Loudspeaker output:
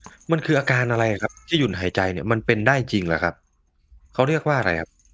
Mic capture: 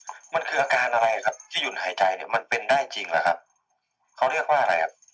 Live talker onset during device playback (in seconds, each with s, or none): none